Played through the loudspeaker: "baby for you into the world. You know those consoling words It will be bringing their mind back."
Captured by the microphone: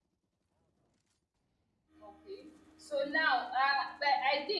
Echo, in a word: none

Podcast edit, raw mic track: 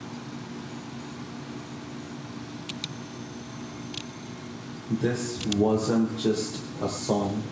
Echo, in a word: none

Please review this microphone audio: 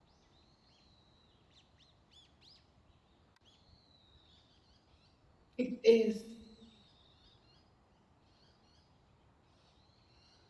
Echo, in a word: none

